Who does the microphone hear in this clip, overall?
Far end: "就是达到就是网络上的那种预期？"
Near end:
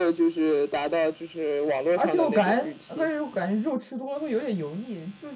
both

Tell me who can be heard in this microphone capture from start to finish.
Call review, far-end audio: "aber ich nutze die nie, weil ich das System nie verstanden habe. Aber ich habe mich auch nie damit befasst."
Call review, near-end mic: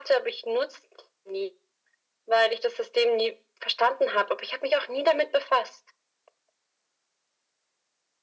echo only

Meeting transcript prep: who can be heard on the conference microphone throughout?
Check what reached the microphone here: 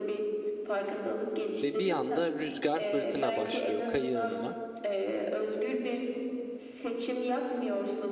both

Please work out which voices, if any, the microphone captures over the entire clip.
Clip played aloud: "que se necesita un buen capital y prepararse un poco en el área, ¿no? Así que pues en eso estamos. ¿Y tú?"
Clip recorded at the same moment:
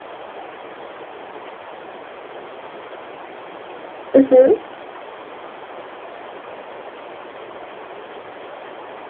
user only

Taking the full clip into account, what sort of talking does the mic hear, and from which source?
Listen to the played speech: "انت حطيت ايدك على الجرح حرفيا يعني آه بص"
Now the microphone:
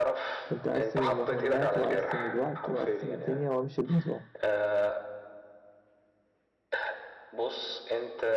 both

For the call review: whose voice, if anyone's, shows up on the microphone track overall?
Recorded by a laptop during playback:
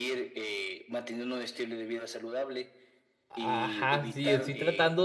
both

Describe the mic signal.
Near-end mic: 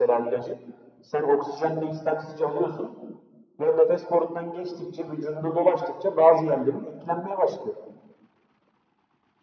echo only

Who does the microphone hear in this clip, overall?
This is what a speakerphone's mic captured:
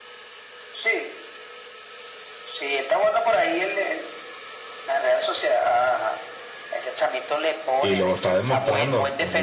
both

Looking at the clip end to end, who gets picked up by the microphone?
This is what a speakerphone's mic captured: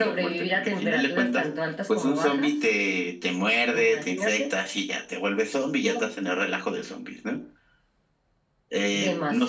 echo only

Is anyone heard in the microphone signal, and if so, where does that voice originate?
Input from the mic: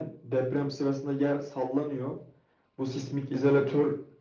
echo only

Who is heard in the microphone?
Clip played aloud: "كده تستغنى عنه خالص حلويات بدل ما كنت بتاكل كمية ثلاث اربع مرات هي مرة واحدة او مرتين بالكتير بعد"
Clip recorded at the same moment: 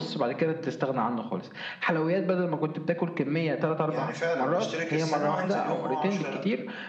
both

